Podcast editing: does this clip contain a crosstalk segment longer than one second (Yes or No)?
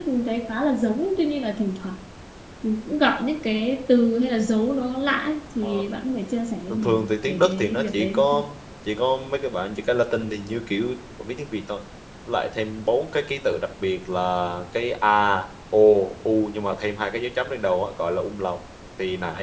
Yes